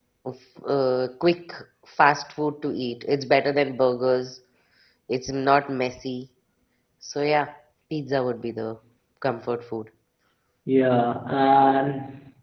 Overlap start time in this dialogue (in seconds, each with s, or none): none